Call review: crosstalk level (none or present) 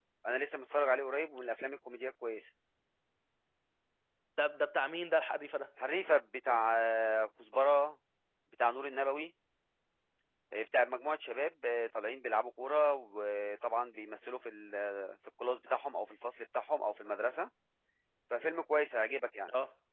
none